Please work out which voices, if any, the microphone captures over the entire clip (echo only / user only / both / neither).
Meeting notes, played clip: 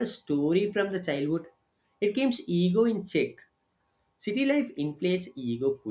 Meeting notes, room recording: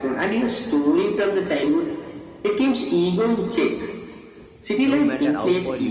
both